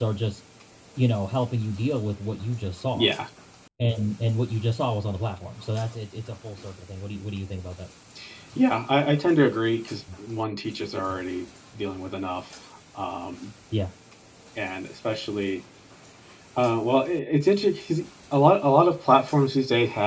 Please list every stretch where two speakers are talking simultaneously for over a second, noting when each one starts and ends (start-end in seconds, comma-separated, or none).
none